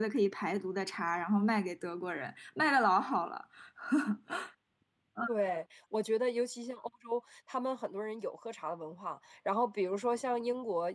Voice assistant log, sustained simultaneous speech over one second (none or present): none